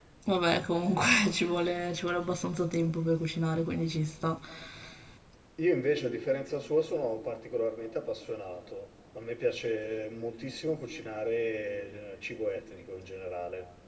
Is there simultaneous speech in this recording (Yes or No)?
No